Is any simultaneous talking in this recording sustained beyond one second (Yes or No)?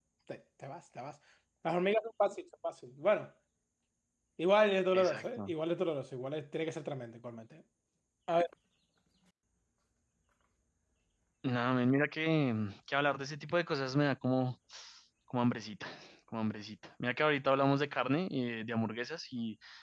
No